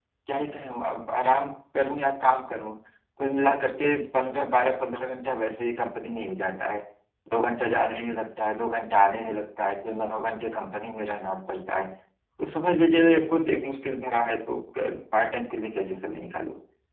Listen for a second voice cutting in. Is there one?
No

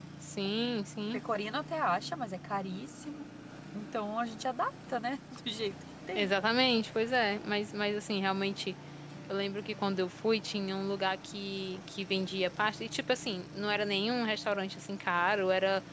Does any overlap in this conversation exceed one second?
No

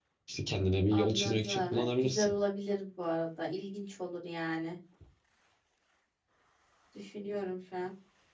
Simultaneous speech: Yes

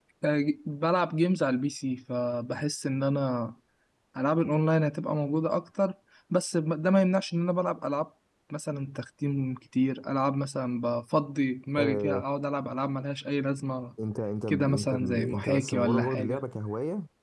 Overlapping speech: Yes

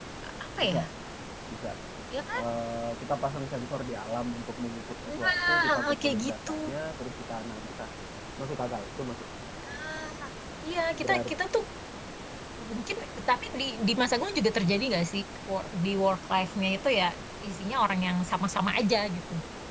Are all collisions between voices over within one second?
No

